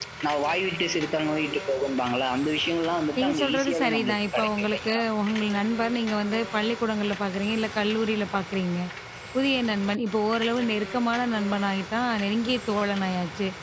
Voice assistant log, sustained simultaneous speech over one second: present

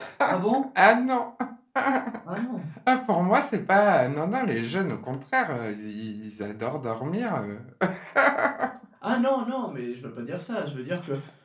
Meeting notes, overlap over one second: none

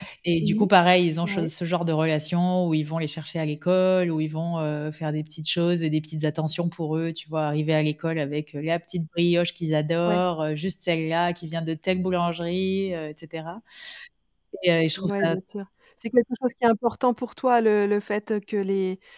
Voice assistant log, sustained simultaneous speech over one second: none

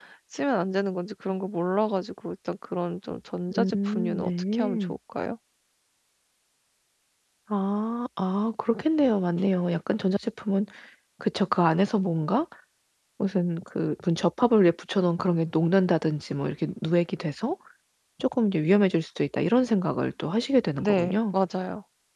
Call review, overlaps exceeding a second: present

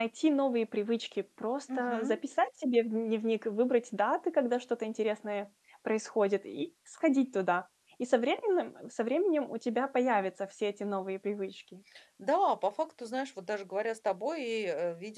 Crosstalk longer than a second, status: none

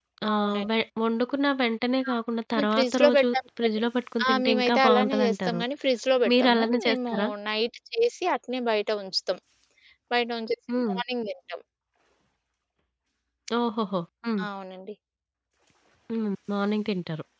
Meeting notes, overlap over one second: present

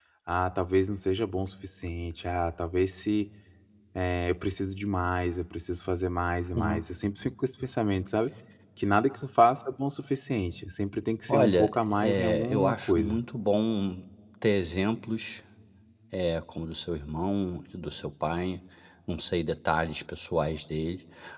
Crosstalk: present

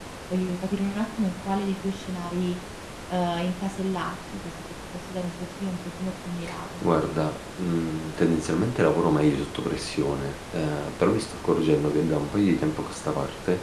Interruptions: none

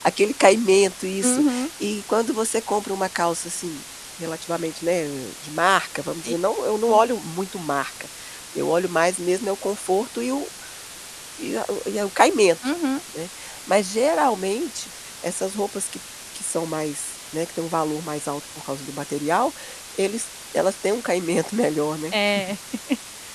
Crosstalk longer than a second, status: none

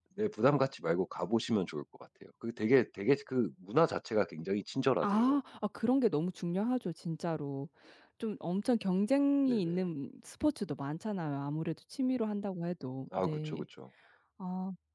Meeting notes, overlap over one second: none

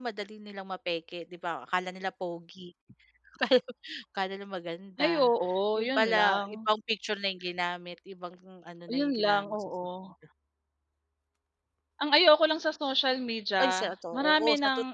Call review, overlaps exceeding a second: present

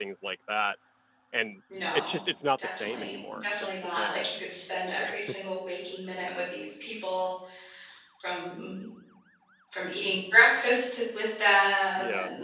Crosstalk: present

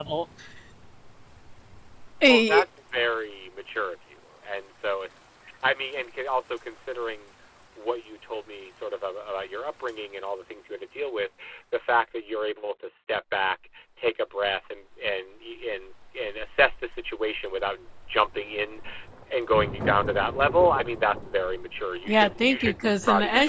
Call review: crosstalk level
present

